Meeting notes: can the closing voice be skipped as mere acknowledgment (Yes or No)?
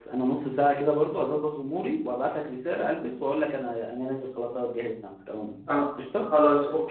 No